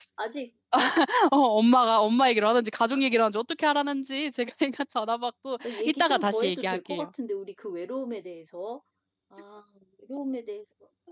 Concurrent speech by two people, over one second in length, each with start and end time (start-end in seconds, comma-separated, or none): 5.6-7.1